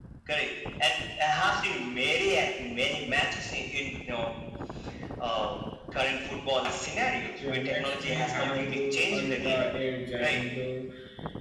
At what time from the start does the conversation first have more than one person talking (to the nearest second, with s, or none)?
7 s